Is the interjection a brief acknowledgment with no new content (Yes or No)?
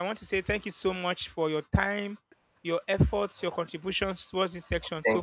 No